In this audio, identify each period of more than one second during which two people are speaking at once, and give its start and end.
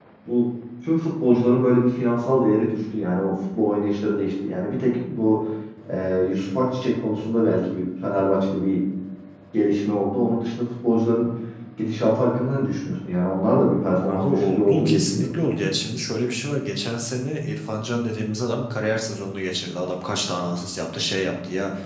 14.1-15.5

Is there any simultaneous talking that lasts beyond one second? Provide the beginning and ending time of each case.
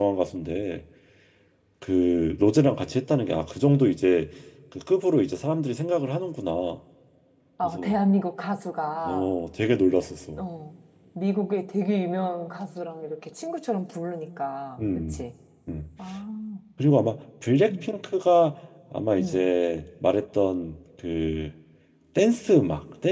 none

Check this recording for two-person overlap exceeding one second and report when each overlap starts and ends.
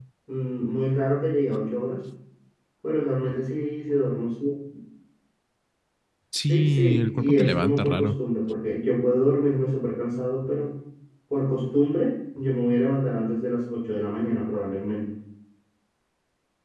6.5-8.1

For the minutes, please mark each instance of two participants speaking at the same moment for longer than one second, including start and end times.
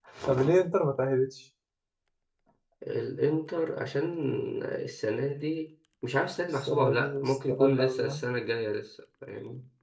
6.7-8.2

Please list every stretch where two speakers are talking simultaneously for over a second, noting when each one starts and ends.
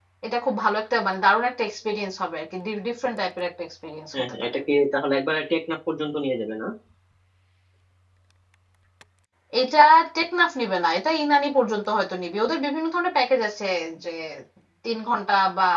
none

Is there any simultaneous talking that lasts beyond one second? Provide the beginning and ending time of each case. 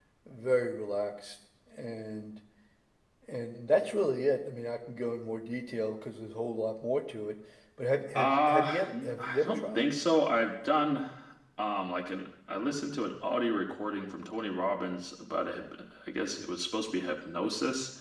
8.1-9.9

